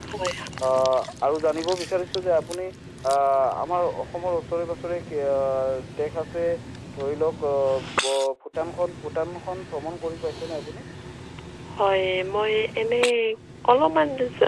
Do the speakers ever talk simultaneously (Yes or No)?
No